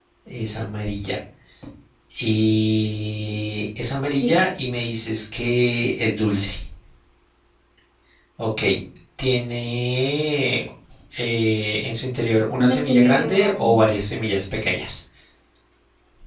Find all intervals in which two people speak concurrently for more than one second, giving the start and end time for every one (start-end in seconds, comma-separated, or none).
12.6-13.8